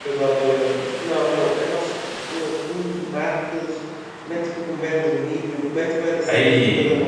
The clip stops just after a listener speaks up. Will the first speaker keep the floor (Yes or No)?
Yes